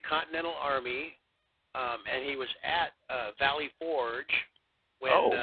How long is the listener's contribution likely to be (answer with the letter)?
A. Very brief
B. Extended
A